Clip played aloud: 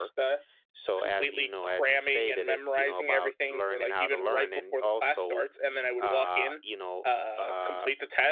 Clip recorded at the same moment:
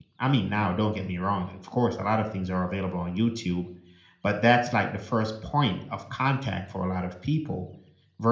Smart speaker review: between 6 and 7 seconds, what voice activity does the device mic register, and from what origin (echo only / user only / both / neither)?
user only